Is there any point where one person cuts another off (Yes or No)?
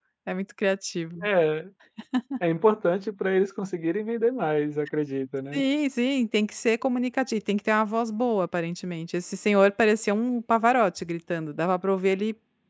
No